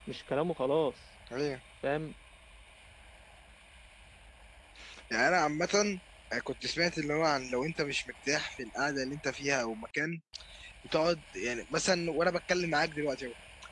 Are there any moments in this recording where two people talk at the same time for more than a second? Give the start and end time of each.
none

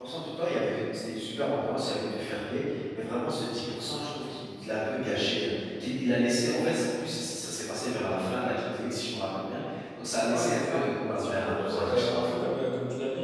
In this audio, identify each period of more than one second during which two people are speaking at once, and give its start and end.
10.3-12.3

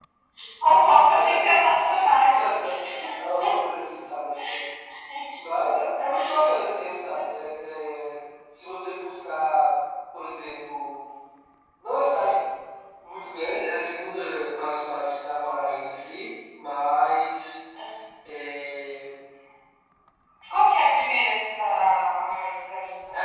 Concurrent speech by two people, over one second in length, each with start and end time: none

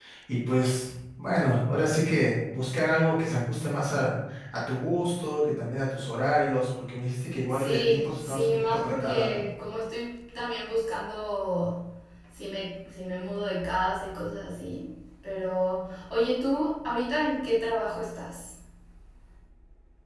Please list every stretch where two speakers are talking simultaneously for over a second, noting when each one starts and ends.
7.5-9.4

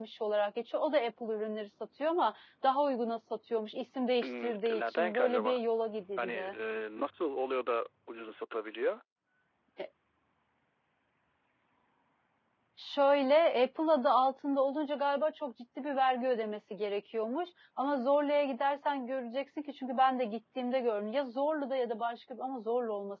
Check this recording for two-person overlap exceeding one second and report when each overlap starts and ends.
4.2-5.6

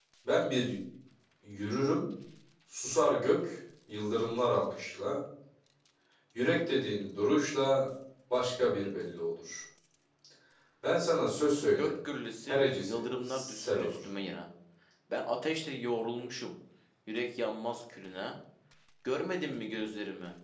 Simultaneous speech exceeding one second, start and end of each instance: 12.5-14.0

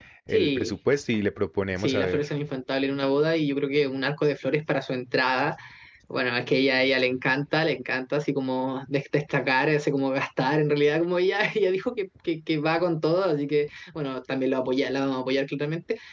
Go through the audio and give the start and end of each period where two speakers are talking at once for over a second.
none

